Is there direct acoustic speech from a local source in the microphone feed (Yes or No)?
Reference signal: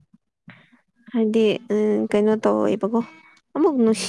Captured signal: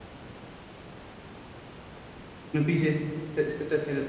Yes